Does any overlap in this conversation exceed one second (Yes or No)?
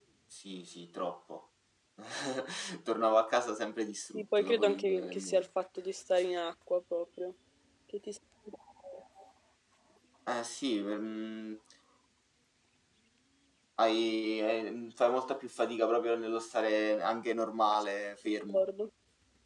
Yes